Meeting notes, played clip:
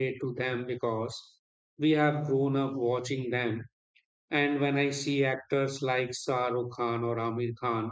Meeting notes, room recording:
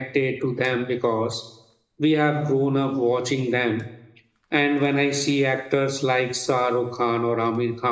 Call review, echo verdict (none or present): present